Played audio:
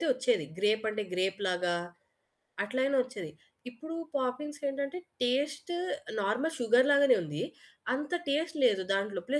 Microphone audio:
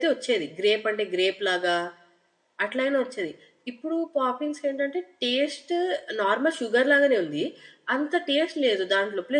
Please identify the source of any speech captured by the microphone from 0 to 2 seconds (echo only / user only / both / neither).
echo only